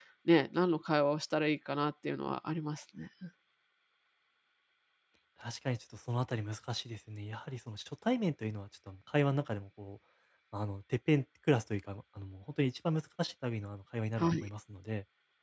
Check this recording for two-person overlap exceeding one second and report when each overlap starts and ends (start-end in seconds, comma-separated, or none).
none